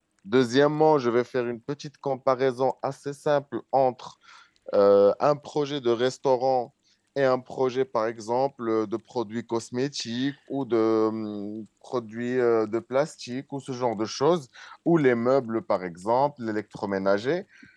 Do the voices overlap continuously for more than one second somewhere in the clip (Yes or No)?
No